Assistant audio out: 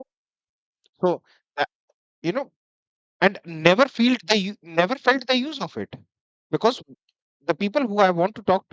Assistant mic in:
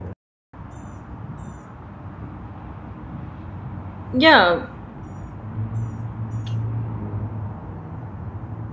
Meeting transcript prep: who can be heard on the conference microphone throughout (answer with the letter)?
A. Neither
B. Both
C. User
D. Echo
C